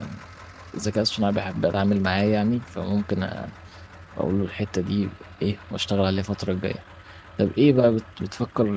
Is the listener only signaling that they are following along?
Yes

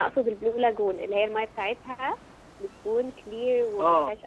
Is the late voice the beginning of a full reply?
Yes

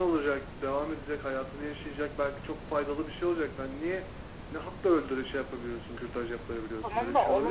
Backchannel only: No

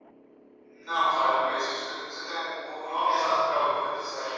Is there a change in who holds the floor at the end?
Yes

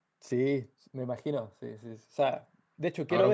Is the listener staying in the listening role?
No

